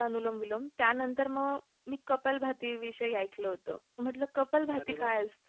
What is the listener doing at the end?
listening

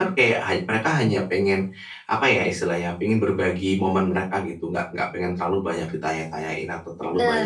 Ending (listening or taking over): listening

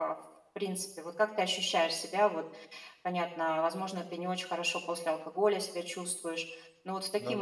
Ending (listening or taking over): listening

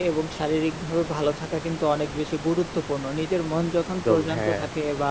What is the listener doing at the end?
listening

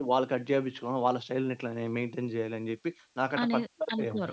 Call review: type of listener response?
taking over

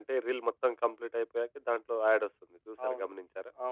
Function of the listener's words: taking over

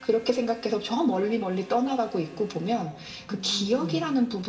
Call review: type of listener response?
listening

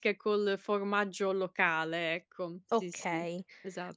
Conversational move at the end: taking over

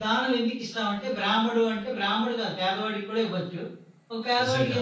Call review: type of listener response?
listening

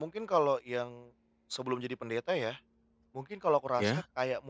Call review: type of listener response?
listening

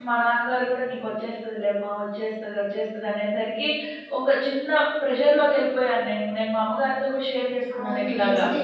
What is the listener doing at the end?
taking over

